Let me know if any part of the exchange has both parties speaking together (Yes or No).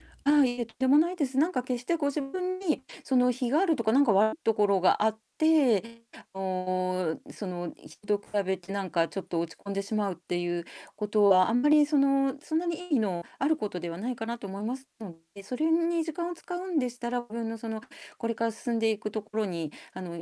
No